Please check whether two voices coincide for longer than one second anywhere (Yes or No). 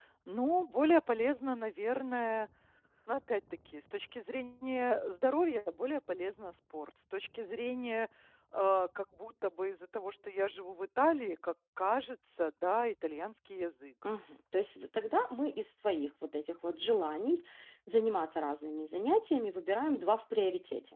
No